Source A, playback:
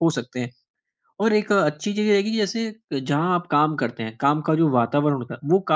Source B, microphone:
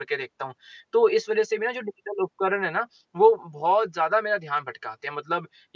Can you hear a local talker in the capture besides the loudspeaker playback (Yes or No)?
Yes